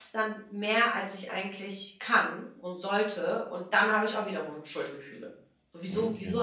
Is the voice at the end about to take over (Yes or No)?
No